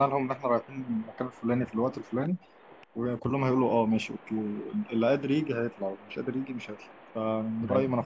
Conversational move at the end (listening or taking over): taking over